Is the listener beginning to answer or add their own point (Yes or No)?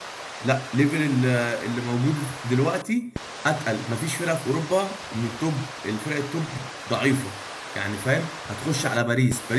No